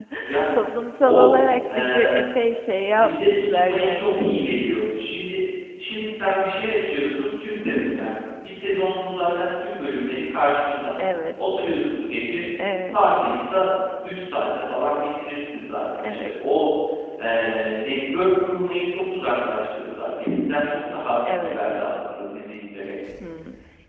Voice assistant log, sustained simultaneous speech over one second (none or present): present